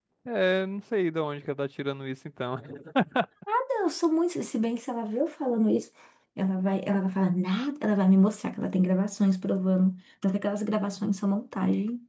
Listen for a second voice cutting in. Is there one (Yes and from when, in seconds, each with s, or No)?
No